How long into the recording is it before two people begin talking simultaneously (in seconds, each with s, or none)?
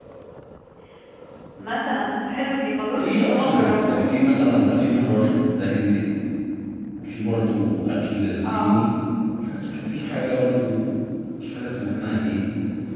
3.0 s